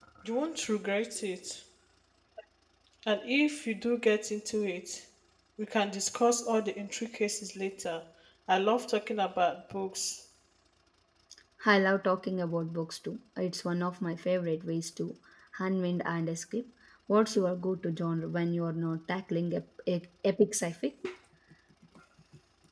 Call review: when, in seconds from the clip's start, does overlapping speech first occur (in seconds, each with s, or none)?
none